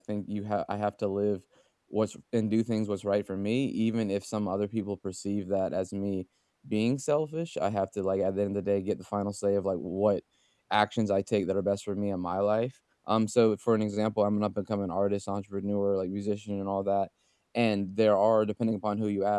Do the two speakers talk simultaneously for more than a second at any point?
No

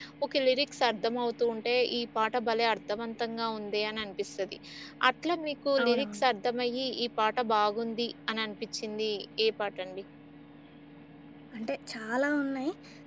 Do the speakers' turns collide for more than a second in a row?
No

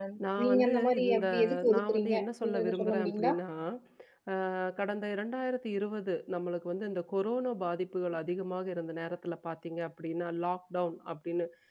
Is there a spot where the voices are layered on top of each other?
Yes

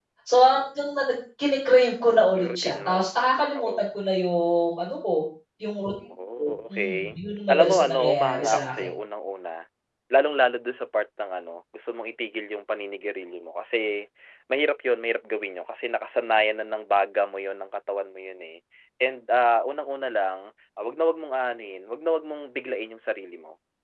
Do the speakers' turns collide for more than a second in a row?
Yes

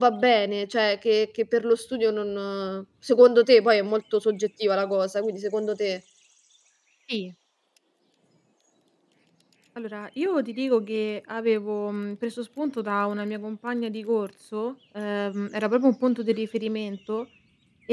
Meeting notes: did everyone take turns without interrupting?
Yes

